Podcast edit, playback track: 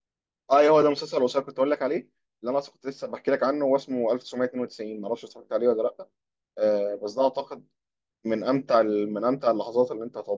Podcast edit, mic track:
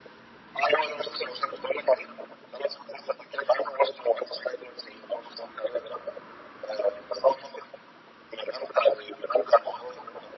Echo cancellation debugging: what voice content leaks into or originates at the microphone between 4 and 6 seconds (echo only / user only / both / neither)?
echo only